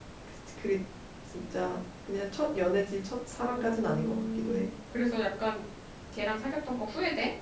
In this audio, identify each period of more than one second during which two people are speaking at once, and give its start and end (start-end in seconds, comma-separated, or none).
3.4-4.7